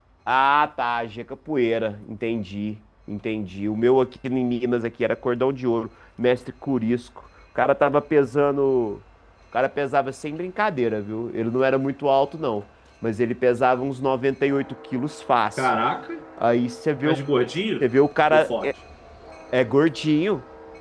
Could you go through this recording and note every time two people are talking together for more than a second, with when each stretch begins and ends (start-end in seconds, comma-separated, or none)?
none